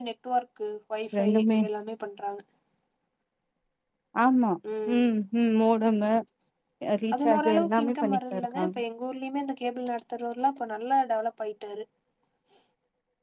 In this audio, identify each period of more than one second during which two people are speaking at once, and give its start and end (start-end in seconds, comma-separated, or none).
7.1-8.8